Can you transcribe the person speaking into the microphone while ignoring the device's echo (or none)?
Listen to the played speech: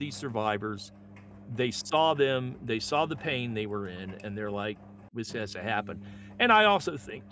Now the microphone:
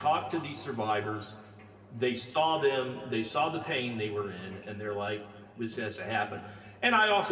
none